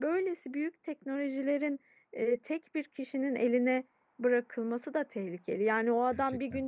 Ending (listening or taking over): listening